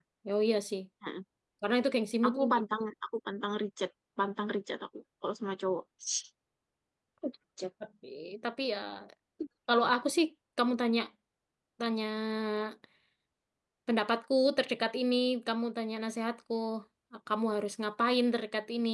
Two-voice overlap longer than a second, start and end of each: none

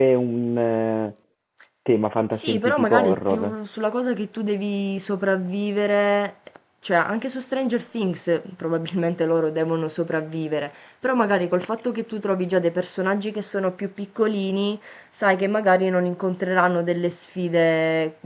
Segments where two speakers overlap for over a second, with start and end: 2.3-3.5

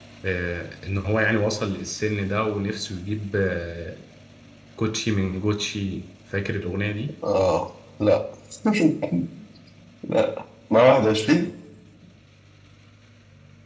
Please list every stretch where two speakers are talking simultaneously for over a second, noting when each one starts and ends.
none

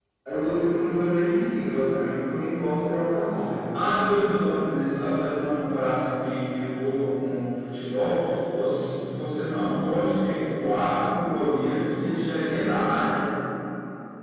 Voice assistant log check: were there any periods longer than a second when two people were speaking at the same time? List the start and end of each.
none

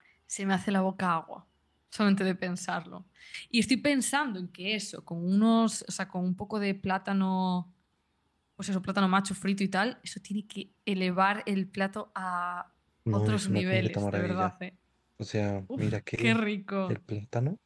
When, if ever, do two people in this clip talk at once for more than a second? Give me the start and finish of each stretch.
13.1-14.5

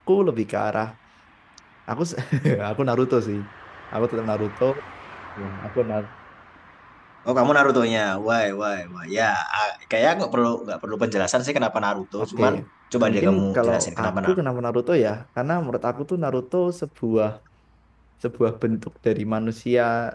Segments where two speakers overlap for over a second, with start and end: 13.0-14.4

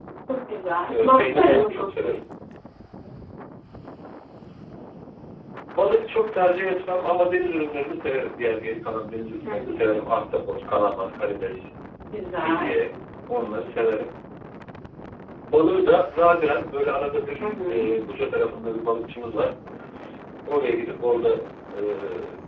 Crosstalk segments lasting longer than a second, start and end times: 0.9-2.1

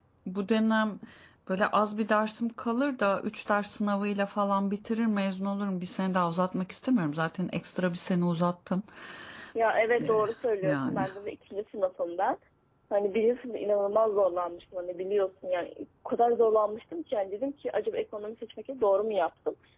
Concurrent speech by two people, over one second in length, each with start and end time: none

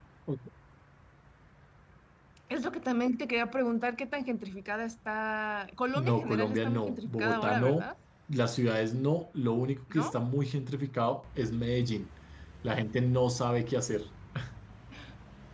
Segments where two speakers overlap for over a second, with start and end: 6.0-7.8

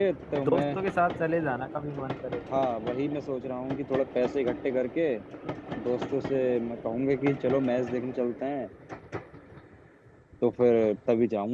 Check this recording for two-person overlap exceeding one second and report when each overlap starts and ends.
none

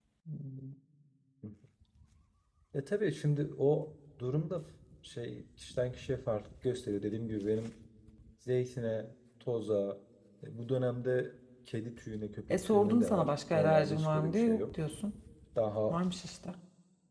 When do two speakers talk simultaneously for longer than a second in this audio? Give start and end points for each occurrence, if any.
12.5-14.6

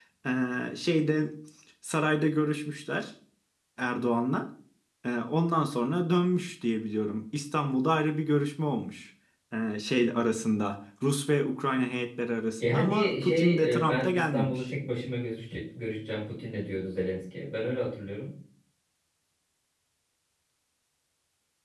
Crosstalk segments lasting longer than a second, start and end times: 12.6-14.7

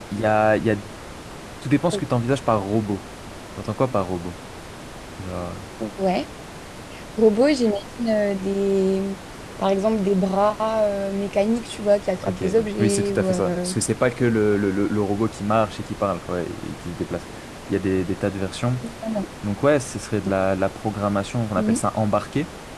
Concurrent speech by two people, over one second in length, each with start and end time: 12.3-13.7

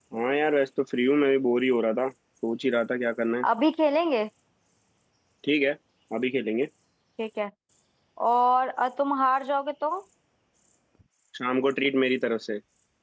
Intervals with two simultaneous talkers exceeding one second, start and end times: none

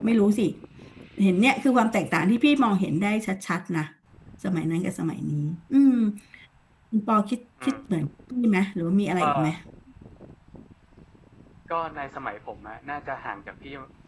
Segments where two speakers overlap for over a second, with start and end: none

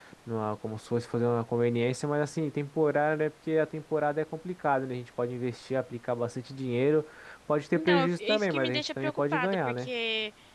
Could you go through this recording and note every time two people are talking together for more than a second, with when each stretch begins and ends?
7.7-9.9

